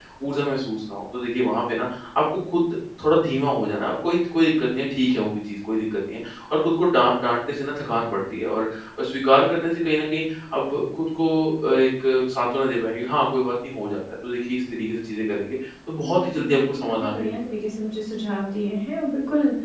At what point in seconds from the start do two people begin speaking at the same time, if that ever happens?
16.0 s

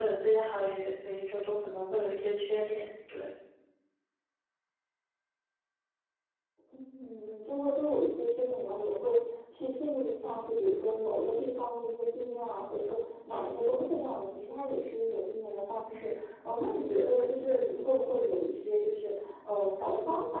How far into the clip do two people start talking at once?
none

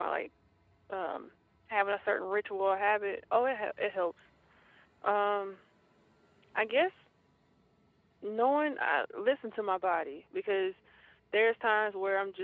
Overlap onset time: none

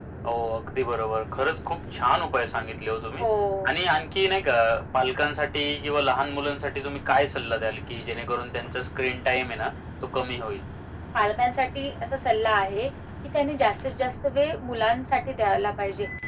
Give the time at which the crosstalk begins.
none

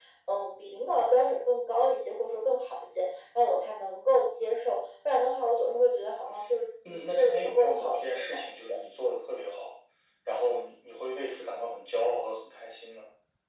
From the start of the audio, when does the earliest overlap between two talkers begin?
6.8 s

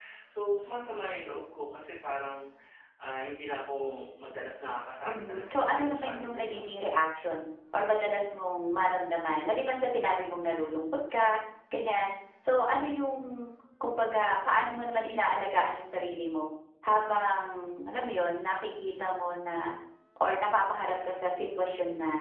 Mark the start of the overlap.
5.0 s

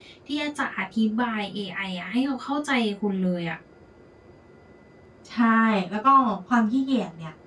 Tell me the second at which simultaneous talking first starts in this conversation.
none

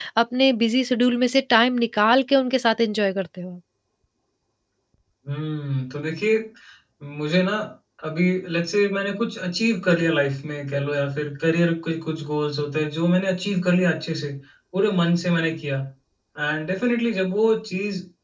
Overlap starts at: none

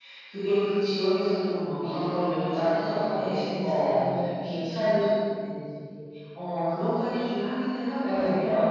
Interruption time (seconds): 1.8 s

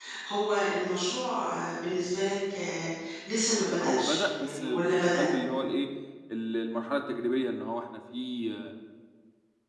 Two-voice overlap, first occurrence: 3.7 s

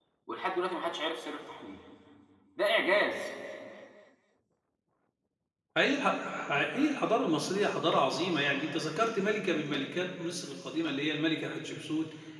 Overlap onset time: none

